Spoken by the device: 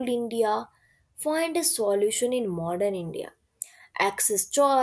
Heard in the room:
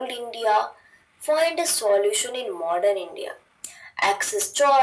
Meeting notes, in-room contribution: none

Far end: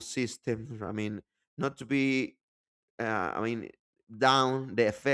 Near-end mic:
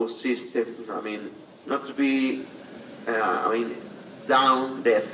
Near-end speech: none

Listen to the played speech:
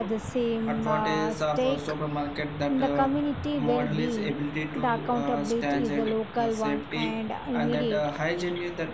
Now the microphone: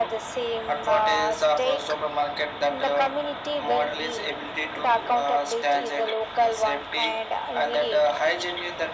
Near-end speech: none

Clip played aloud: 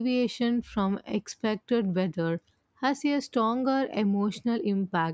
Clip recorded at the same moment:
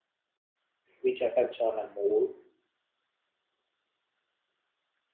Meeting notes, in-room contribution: present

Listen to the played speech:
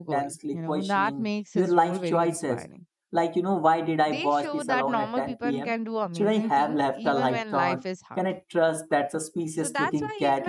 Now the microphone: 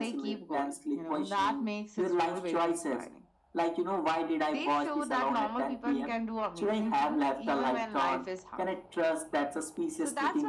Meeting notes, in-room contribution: none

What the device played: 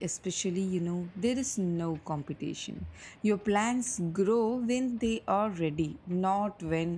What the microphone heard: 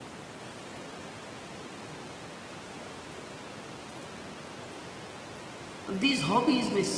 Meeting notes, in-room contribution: present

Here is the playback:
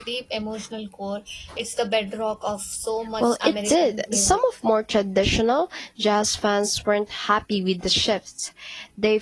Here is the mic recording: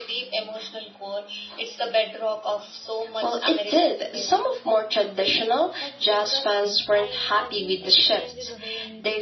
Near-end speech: present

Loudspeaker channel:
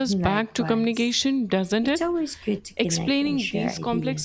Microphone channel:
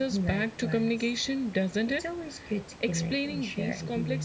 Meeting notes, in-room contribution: none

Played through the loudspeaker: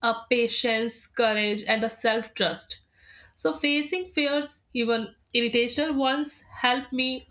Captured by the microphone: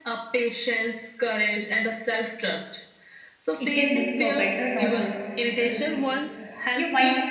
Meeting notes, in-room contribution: present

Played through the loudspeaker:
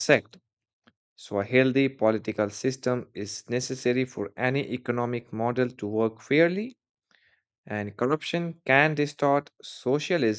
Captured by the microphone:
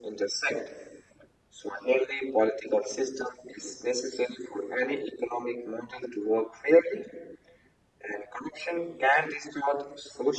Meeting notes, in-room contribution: none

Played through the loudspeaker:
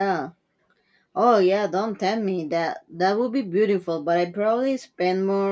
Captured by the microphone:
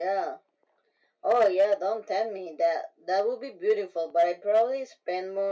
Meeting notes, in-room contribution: none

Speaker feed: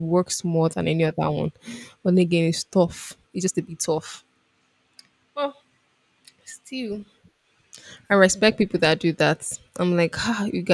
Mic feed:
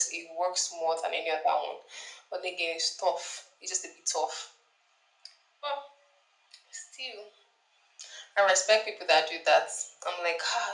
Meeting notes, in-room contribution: none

